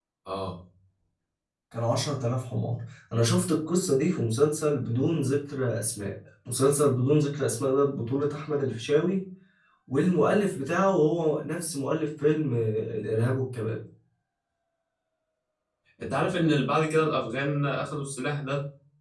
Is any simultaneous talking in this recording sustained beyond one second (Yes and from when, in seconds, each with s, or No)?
No